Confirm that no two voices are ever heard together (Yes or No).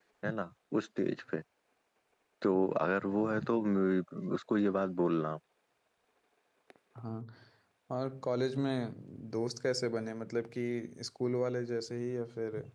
Yes